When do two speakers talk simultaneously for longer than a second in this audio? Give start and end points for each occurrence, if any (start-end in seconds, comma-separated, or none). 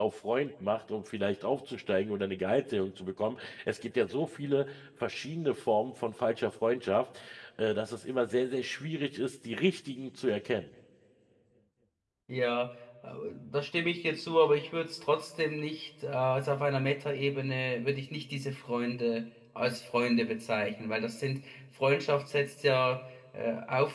none